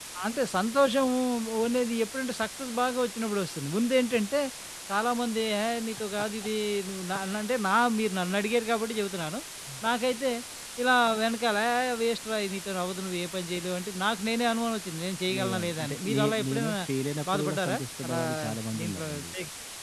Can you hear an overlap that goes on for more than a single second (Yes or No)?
Yes